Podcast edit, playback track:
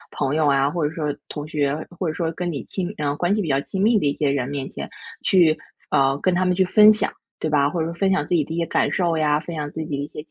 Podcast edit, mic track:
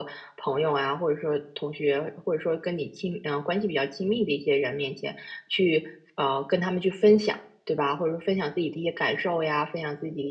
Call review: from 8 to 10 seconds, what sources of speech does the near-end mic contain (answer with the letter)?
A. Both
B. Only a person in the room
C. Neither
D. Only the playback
D